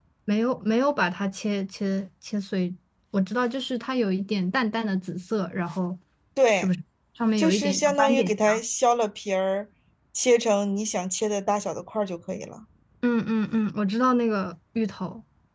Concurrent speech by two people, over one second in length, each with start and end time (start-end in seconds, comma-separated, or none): 7.4-8.6